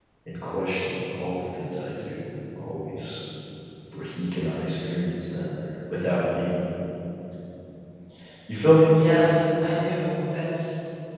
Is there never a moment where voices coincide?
Yes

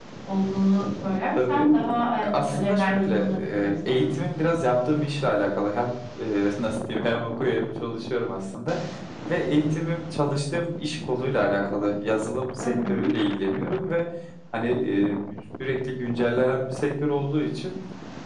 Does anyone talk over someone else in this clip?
Yes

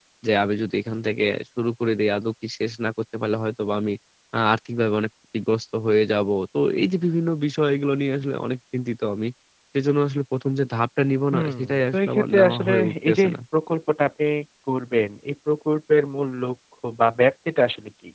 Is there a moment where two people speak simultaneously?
Yes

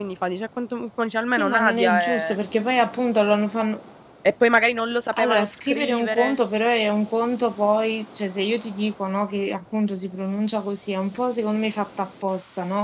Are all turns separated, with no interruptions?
No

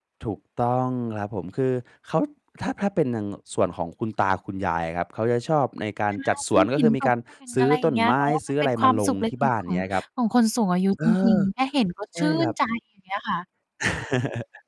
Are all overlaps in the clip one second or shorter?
No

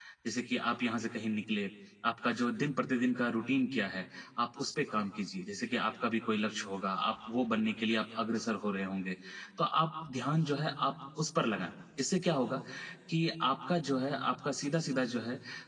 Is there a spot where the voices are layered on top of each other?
No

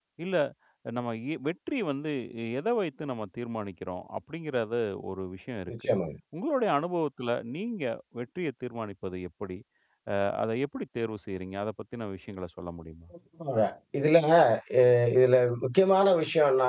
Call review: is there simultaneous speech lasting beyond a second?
No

